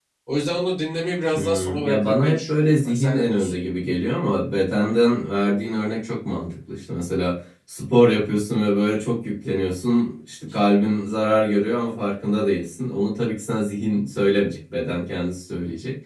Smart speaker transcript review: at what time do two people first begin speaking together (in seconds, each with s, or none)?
1.3 s